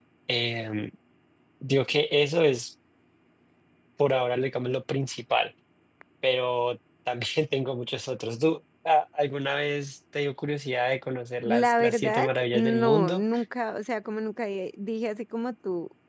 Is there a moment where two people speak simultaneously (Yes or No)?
Yes